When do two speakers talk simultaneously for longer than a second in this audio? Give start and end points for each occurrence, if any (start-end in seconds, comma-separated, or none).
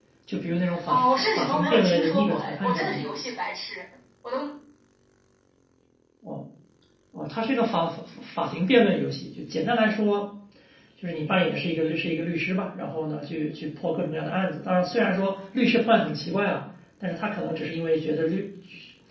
0.9-3.0